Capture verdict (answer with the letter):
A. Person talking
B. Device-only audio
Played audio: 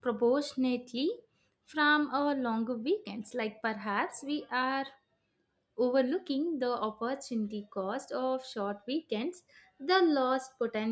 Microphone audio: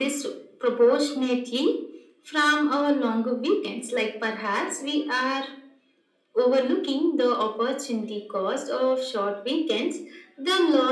B